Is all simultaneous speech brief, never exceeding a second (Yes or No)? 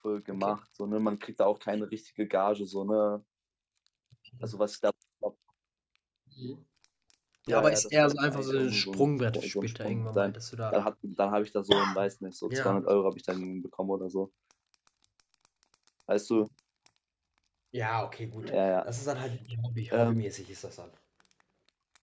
No